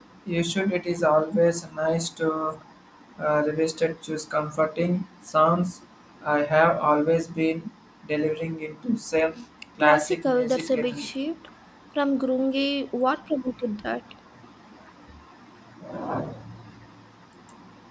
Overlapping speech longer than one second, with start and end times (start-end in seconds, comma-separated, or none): 9.8-11.1